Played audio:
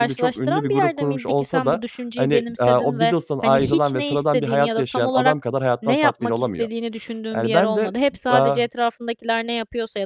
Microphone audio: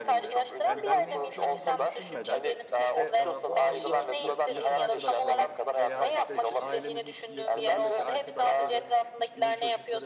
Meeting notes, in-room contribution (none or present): present